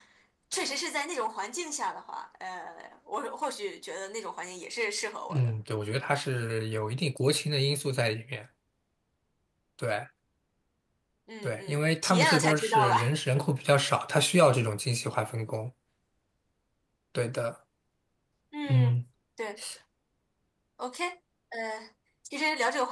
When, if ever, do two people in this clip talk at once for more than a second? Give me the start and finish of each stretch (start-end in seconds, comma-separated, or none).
11.4-13.1